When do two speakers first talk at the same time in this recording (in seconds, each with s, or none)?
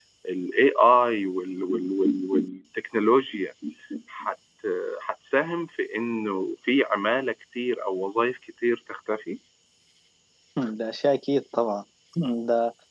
none